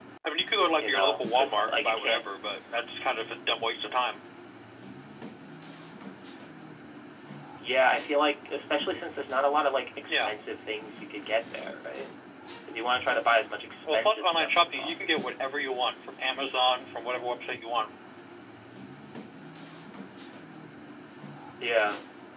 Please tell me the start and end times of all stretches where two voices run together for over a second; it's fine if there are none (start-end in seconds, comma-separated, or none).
0.8-2.3, 13.9-15.2